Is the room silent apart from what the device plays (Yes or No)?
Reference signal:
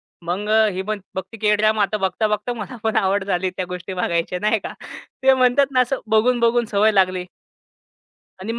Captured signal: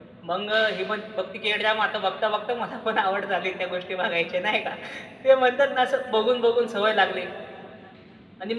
Yes